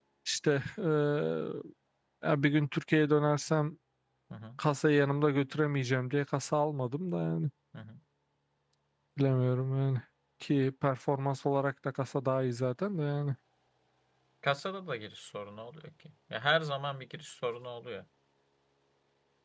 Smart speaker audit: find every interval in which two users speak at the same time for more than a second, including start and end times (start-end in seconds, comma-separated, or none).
none